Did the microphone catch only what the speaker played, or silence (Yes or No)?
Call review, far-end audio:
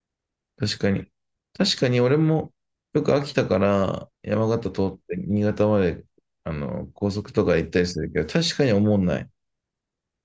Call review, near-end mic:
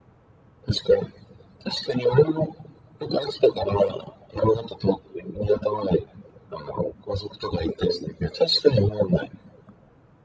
Yes